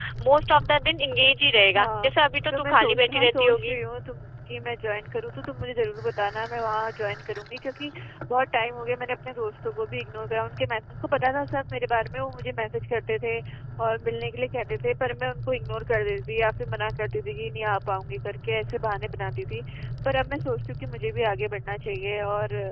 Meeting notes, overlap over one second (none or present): present